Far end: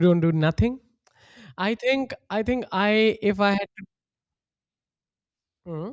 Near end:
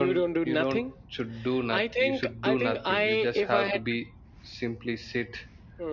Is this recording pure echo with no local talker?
No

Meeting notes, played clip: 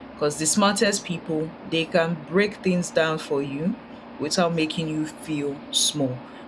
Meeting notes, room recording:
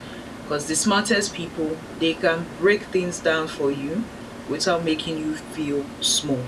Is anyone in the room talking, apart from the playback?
No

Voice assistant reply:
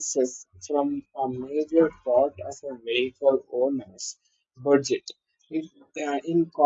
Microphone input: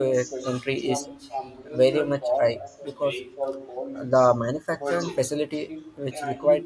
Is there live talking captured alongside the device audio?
Yes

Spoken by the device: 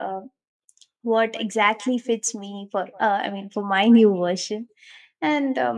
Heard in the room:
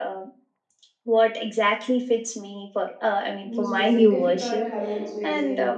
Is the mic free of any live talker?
No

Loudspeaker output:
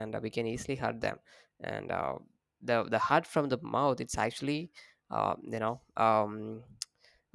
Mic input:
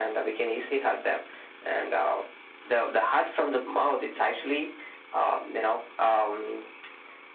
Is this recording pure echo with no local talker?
Yes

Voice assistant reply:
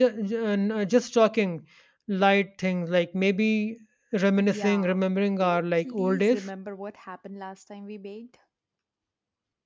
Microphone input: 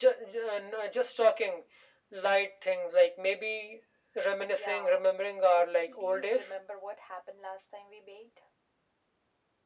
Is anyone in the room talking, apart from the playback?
No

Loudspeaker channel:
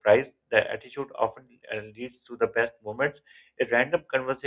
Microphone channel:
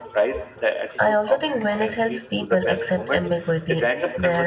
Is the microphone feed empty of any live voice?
No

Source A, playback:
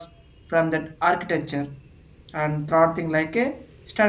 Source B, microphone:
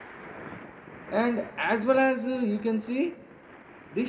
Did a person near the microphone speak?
Yes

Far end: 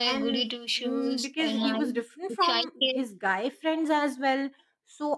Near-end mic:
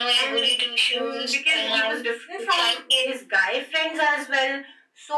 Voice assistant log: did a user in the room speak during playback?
No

